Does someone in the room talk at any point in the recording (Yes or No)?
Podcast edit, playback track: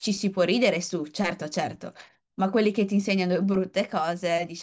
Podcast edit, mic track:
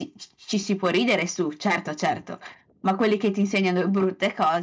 No